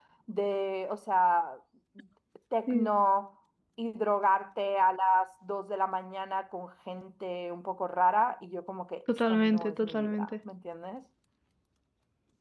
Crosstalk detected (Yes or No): Yes